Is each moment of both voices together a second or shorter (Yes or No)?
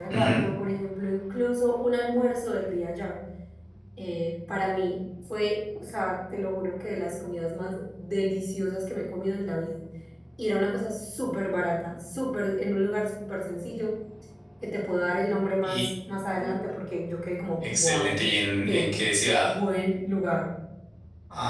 Yes